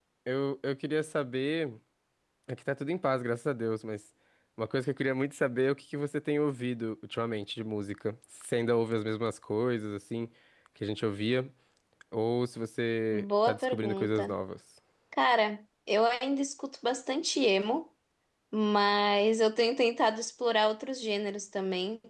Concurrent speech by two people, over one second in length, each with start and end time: 13.1-14.3

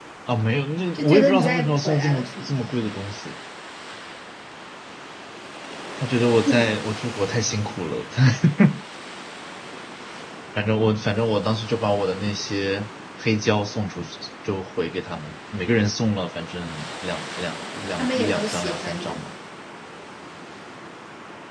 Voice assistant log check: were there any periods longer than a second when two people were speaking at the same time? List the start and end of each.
0.9-2.5, 18.0-19.2

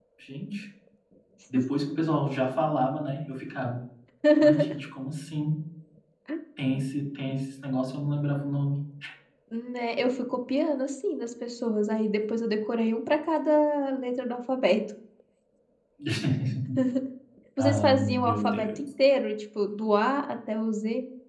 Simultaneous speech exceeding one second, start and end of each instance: 17.6-18.9

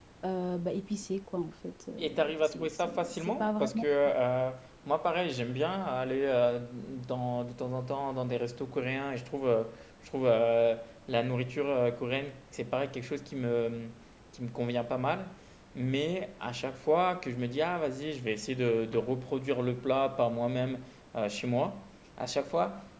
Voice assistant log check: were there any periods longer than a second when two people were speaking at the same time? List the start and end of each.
2.0-3.8

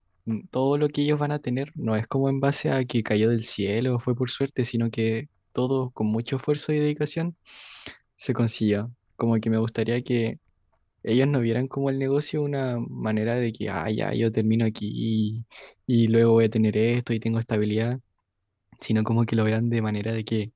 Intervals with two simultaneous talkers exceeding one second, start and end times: none

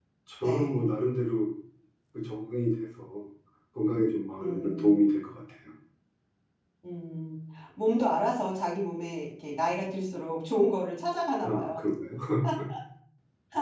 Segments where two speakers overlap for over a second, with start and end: none

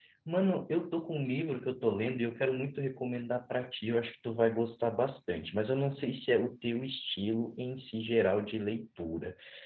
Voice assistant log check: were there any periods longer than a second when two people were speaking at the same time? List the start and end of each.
none

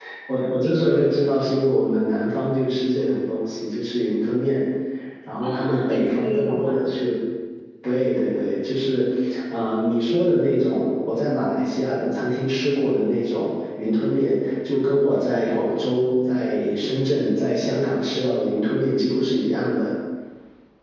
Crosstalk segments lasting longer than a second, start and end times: 5.4-6.9

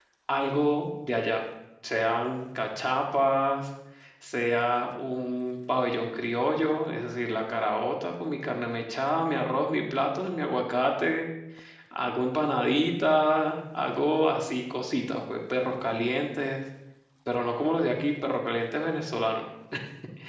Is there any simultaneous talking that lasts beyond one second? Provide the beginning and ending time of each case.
none

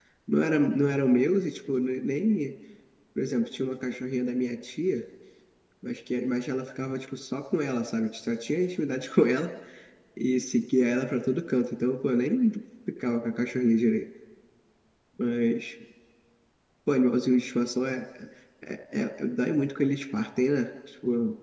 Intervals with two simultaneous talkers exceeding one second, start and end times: none

